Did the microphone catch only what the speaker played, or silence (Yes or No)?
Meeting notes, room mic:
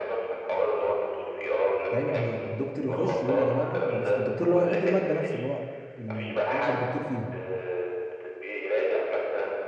No